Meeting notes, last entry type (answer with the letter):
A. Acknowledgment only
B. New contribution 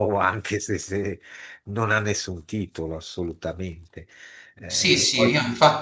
B